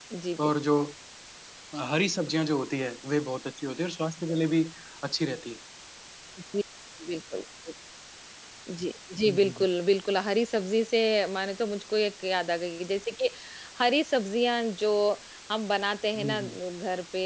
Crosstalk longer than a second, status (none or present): none